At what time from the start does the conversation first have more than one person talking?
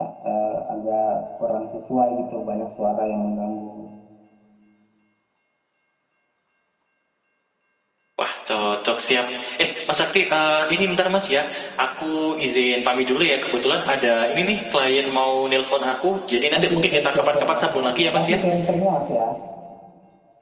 17 s

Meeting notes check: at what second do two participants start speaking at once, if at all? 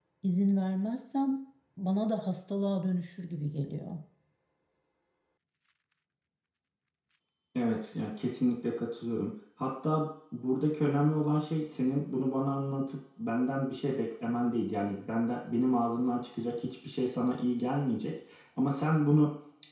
none

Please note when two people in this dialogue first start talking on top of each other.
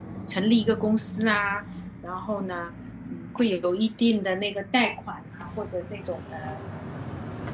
none

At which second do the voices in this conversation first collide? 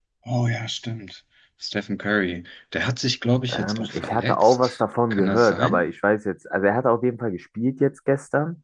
3 s

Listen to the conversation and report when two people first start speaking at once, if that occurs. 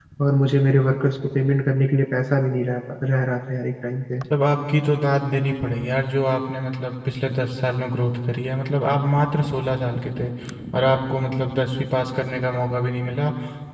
none

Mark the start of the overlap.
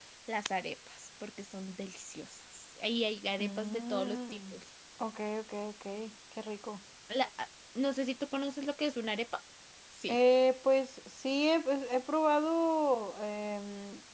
3 s

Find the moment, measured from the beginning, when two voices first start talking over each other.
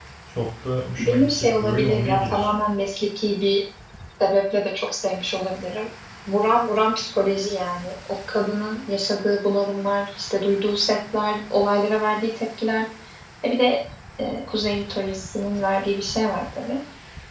1 s

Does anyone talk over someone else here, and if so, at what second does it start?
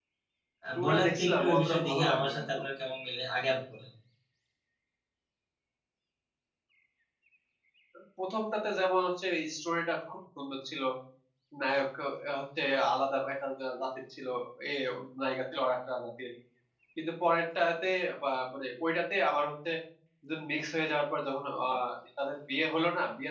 1 s

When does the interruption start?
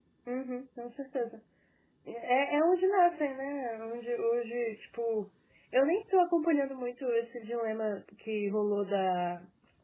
none

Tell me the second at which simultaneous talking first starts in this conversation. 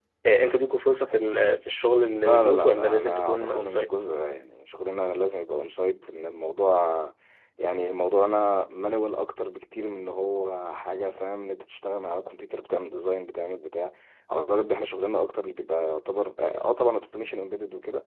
2 s

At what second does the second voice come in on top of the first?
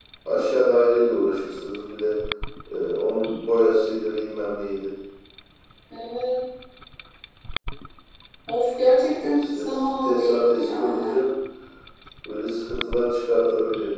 9 s

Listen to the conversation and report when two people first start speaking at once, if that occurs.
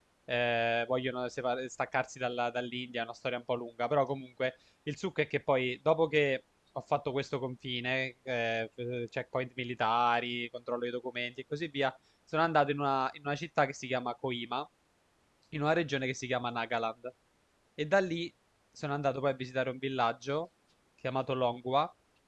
none

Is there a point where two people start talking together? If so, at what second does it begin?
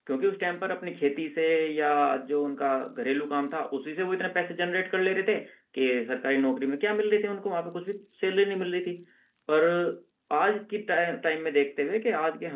none

